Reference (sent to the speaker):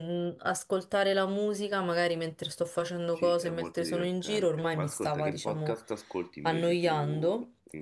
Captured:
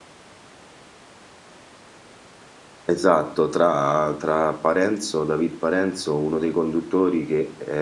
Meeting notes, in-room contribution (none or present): present